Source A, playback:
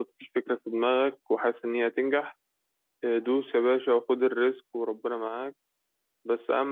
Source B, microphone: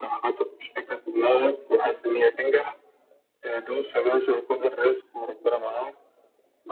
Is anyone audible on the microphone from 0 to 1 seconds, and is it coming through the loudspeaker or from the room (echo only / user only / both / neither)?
echo only